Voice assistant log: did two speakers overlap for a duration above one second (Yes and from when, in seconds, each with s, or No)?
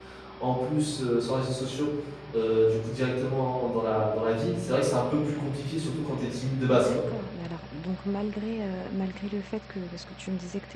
No